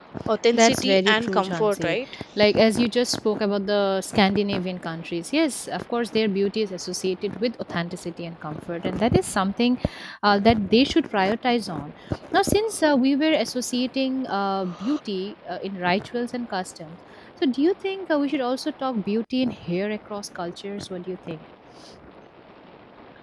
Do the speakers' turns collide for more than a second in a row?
Yes, from 0.5 s

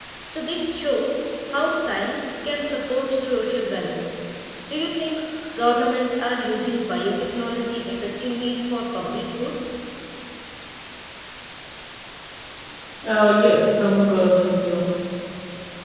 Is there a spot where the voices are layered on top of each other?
No

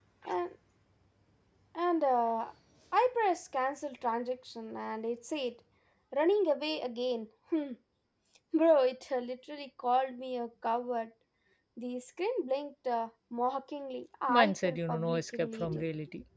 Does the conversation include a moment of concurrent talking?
Yes, from 14.3 s

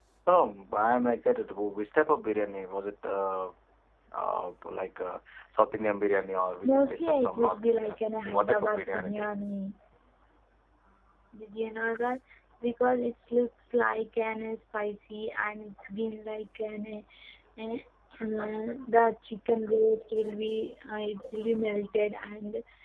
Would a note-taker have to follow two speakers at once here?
Yes, from 6.6 s

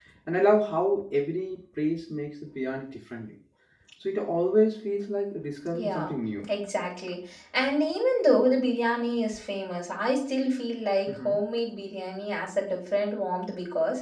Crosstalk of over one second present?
No

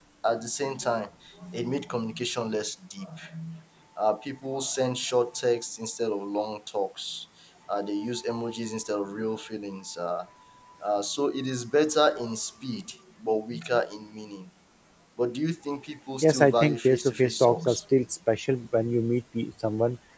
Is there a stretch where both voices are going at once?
Yes, from 16.2 s

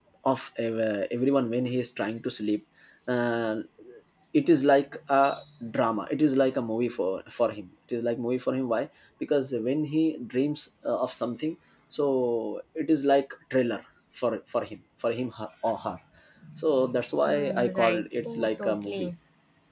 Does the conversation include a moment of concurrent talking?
Yes, from 17.2 s

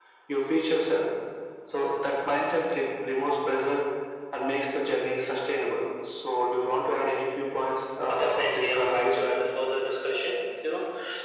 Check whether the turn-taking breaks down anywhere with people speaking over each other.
Yes, from 8.1 s

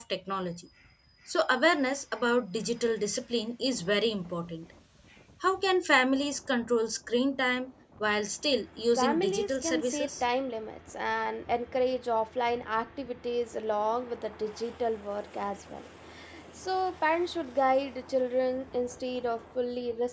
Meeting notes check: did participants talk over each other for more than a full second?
Yes, from 9.0 s

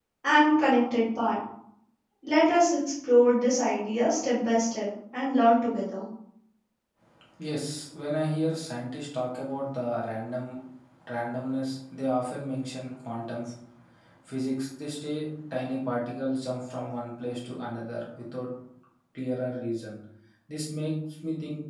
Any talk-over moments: No

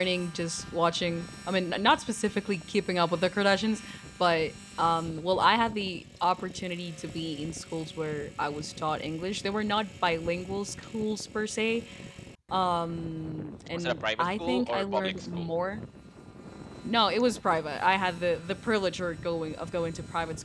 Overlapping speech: Yes, from 13.7 s

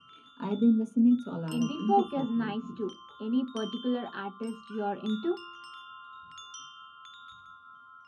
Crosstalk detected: Yes, from 1.5 s

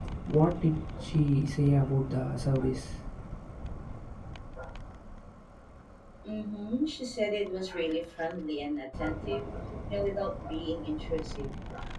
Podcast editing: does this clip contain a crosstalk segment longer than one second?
No

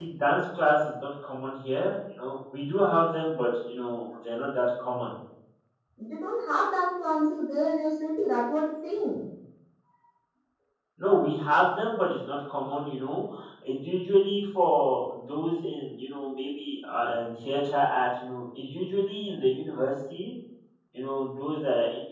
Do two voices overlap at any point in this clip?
No

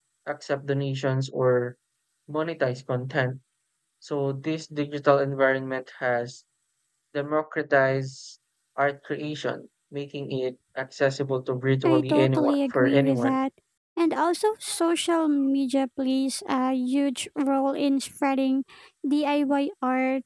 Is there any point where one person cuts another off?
Yes, from 11.8 s

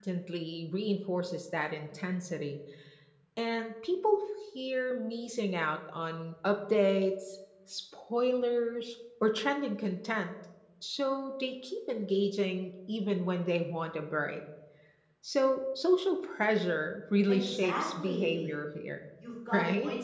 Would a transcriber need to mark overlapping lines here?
Yes, from 17.3 s

